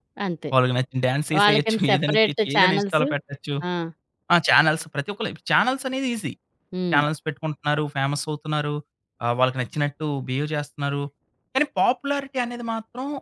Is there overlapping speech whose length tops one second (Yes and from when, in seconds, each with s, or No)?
Yes, from 1.4 s